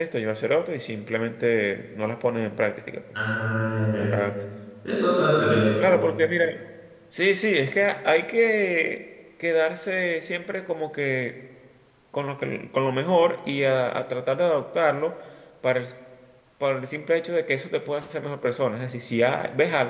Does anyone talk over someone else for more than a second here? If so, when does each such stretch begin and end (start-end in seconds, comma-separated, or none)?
none